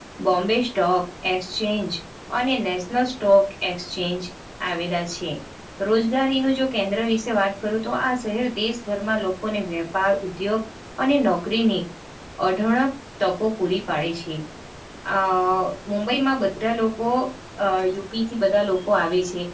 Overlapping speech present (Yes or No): No